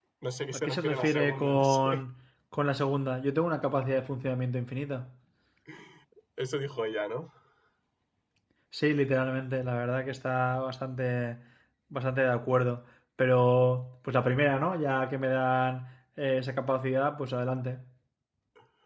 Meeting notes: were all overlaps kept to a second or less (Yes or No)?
No